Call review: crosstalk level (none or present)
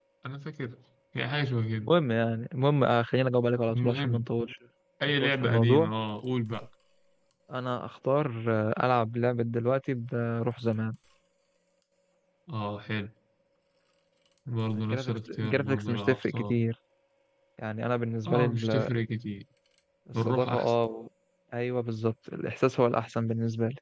present